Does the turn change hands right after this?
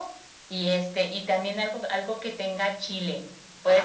No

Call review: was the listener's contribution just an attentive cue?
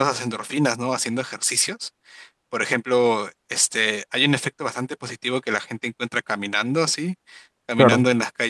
Yes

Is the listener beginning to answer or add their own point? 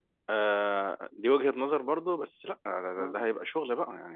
No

